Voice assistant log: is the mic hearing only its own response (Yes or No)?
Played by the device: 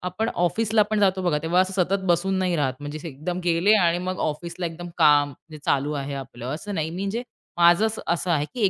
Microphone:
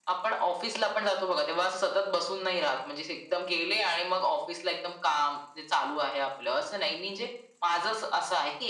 Yes